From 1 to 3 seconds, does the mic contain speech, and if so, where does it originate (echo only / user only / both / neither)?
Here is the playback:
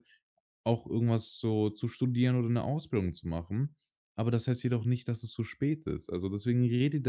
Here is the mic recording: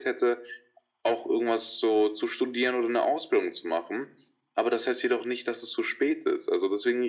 echo only